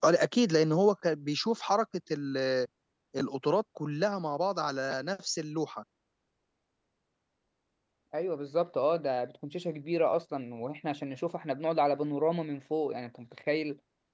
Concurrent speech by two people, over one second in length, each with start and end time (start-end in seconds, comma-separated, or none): none